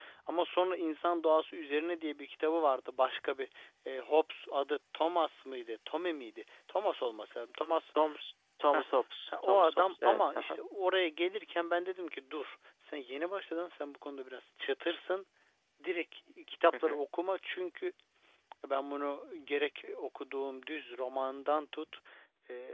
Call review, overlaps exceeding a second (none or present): present